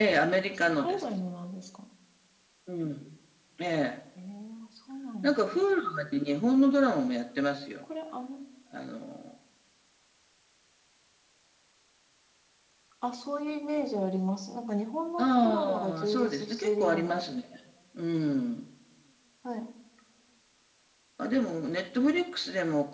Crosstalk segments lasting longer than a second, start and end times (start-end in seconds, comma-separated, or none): 15.2-17.2